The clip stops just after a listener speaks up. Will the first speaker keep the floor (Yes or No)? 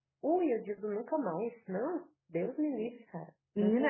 No